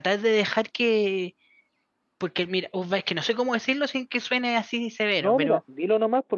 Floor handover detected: Yes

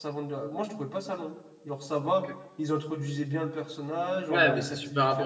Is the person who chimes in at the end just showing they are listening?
No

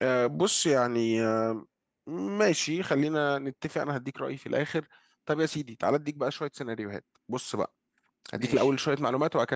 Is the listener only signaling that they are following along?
Yes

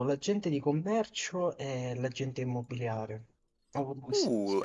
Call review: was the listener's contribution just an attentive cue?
No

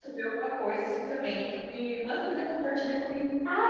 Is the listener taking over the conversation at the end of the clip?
Yes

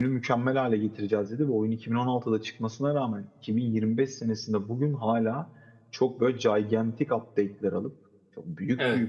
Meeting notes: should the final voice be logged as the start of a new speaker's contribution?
No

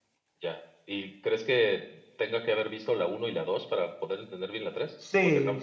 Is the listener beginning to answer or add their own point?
Yes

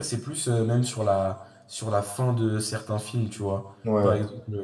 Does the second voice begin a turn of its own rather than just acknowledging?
No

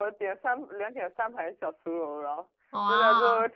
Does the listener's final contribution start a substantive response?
No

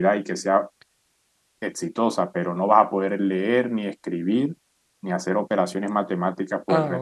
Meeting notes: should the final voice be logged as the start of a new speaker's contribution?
Yes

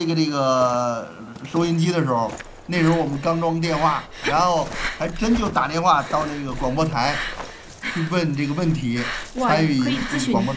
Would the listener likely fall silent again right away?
No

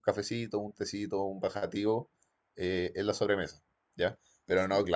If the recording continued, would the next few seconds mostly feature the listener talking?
No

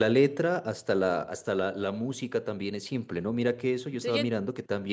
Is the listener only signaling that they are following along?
Yes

